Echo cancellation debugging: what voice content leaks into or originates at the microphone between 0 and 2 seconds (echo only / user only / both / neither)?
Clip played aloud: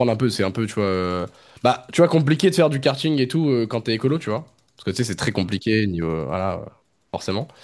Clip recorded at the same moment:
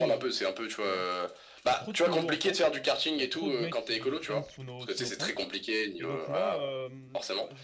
both